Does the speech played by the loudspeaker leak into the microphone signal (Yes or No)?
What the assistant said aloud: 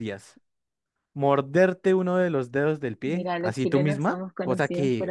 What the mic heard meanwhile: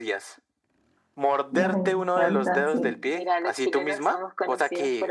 Yes